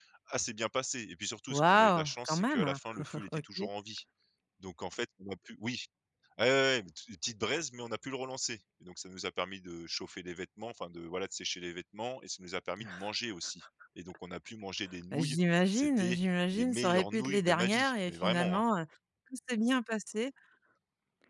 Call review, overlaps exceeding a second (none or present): present